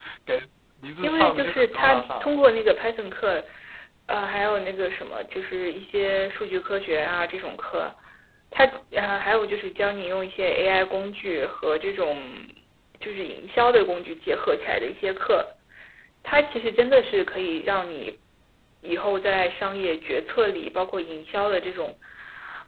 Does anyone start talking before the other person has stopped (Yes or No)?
Yes